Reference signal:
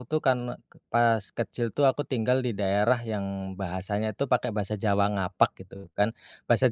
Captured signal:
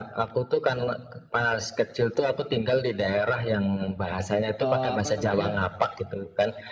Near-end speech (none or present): present